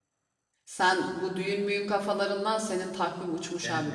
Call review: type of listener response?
taking over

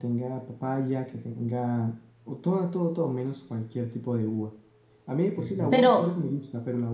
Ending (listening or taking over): listening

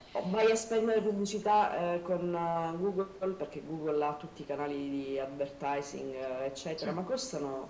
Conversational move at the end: listening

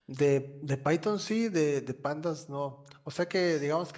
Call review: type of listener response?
listening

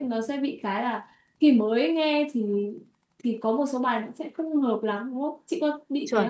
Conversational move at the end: taking over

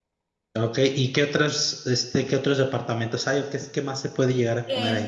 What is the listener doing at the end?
taking over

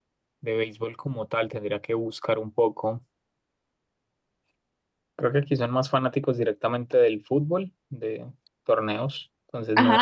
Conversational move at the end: taking over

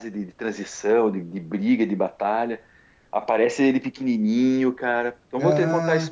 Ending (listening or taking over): taking over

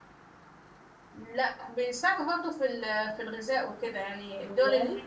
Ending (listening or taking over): listening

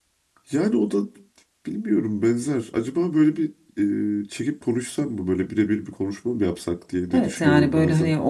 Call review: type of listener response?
taking over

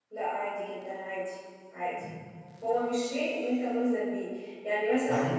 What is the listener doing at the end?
listening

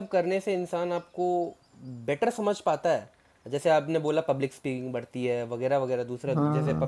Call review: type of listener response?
listening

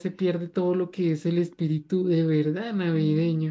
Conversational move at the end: taking over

